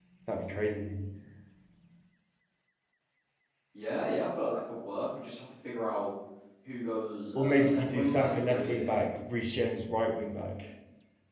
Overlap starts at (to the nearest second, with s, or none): 7 s